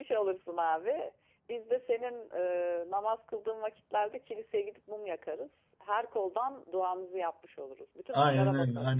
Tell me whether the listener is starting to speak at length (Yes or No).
Yes